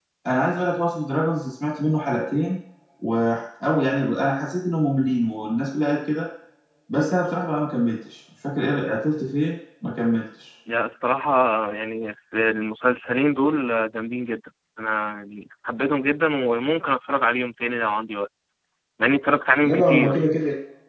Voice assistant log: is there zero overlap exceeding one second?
Yes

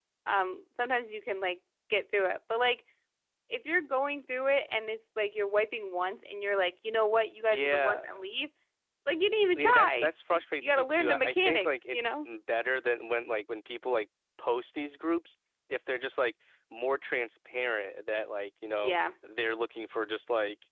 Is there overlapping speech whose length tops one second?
Yes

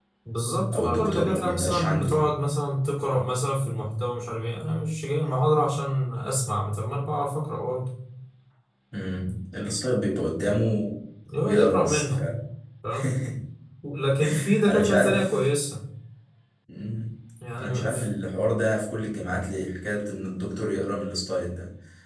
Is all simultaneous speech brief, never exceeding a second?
No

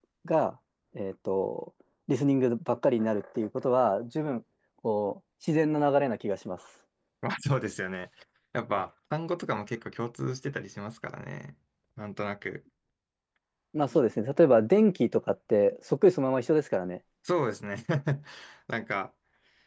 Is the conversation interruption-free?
Yes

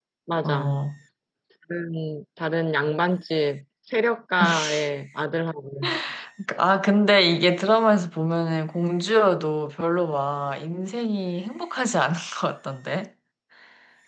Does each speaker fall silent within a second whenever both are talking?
Yes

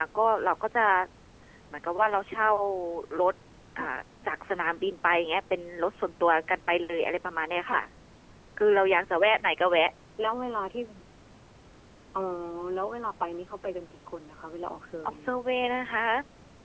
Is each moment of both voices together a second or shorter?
Yes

